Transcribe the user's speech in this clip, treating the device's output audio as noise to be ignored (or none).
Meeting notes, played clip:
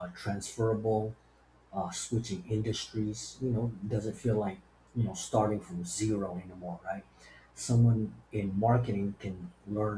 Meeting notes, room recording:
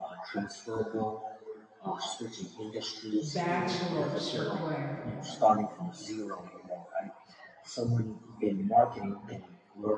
bachelor's required.